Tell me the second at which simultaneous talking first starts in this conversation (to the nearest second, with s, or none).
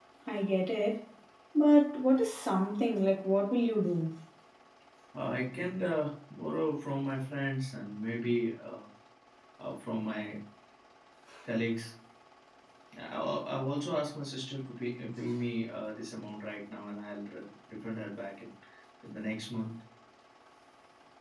none